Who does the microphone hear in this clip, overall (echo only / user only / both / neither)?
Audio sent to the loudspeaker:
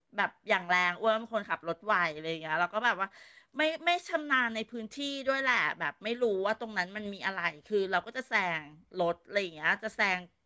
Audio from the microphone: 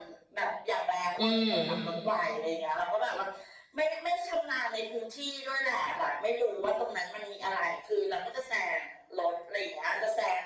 both